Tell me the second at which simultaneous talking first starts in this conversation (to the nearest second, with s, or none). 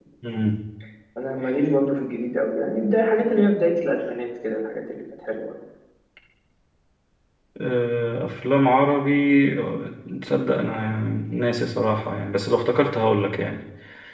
none